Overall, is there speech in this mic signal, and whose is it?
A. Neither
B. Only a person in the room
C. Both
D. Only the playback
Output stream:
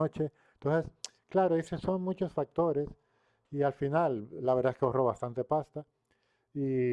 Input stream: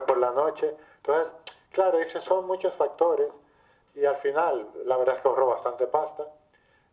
D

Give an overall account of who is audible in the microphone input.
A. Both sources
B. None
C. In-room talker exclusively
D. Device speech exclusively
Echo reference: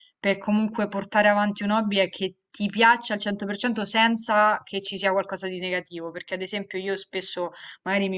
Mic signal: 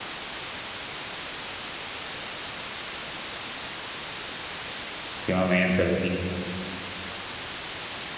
C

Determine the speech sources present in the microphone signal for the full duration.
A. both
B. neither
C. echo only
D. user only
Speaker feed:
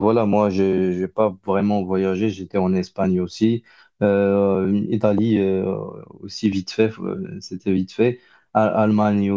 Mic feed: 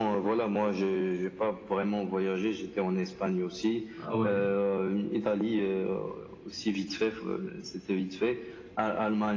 A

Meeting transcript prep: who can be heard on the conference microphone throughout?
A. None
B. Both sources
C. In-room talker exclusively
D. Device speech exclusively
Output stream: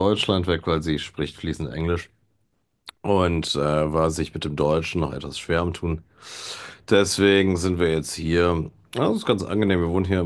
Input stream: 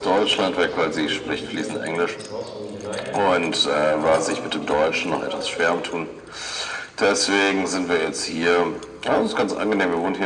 B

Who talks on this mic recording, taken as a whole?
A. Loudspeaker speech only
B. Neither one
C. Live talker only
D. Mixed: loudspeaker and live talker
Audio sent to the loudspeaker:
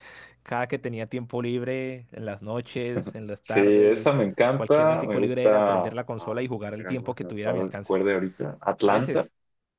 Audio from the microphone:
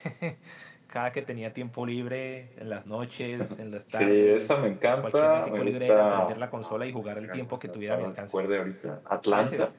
A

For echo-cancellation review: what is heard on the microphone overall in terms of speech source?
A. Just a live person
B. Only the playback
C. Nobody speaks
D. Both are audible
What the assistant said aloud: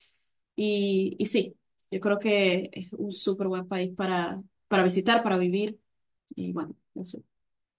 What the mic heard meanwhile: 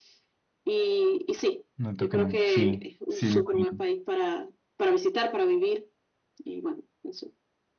D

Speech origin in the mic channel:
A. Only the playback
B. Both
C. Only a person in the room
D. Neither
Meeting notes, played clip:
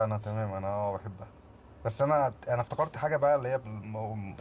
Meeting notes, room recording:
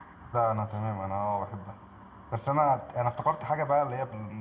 A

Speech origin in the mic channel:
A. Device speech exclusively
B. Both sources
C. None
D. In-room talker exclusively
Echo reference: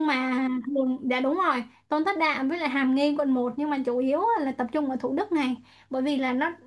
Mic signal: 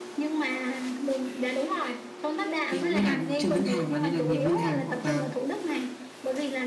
B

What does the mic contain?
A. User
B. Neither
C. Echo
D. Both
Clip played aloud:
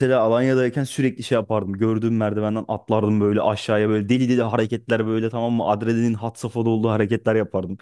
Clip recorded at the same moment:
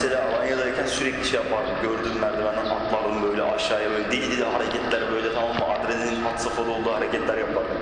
C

